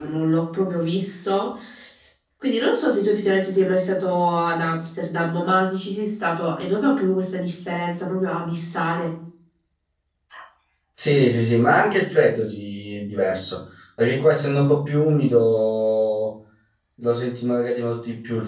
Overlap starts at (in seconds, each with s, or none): none